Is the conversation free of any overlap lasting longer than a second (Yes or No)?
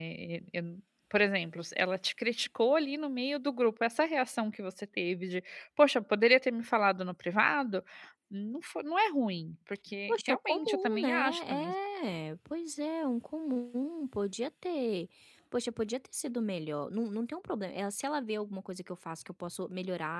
No